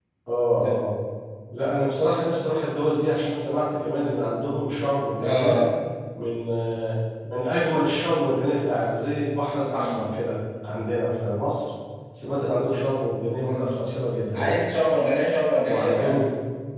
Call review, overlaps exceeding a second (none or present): none